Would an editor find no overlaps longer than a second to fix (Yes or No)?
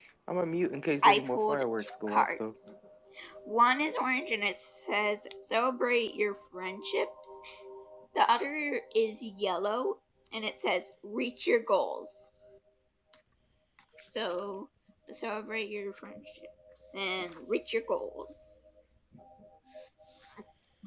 No